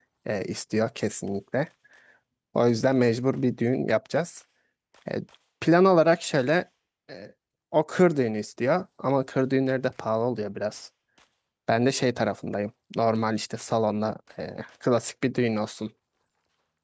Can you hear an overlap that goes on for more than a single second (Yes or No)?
No